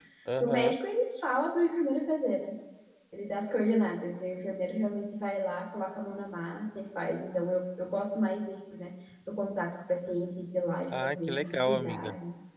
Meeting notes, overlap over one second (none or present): present